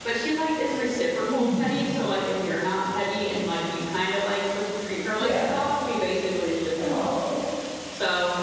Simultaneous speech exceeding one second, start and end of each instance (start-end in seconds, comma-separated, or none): none